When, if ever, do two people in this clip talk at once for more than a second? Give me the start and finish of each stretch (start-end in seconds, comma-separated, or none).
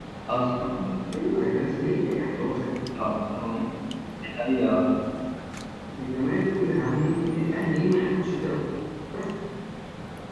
none